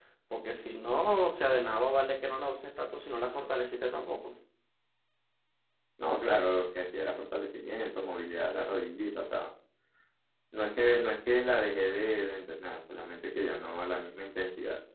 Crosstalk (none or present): none